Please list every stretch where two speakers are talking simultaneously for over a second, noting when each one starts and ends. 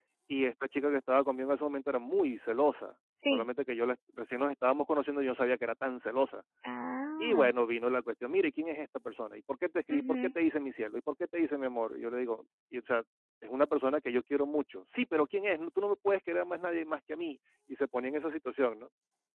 none

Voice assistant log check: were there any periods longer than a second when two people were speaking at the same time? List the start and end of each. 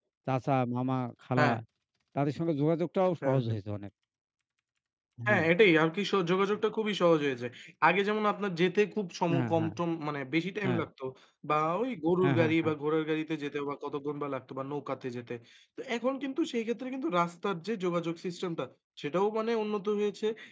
none

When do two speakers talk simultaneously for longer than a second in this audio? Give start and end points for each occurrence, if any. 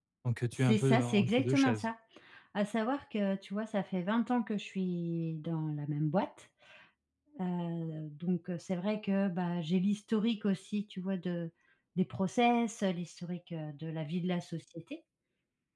0.5-1.8

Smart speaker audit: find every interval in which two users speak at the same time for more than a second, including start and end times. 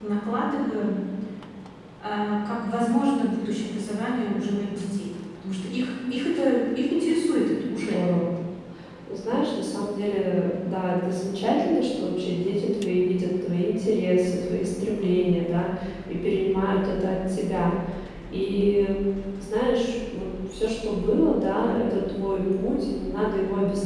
none

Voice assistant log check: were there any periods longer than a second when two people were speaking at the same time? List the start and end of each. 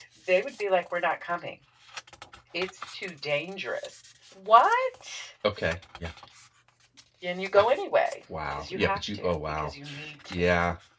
8.5-9.7

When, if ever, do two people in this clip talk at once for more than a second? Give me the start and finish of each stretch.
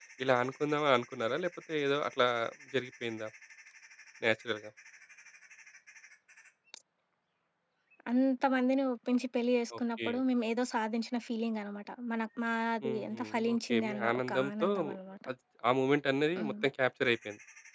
12.8-14.7

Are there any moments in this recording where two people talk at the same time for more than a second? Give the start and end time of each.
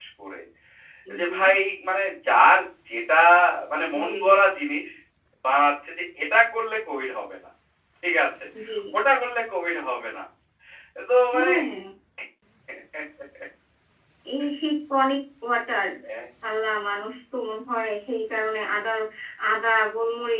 none

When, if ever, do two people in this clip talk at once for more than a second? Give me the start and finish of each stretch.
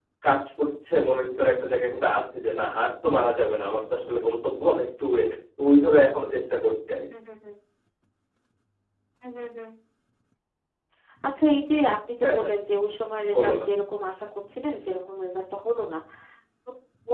none

